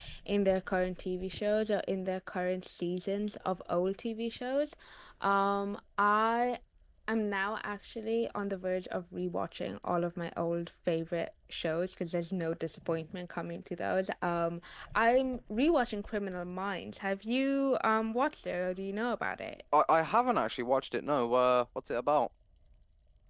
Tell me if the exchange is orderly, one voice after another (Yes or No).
Yes